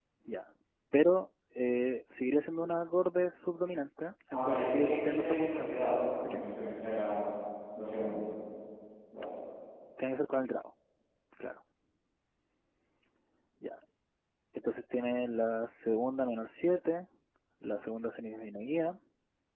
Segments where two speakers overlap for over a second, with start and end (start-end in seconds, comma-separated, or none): 4.3-5.6